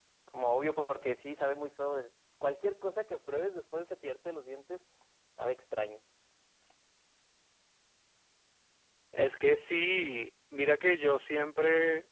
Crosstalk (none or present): none